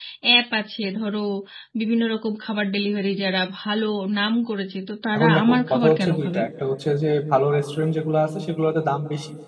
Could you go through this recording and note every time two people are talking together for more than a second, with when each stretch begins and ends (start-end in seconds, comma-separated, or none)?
5.2-6.4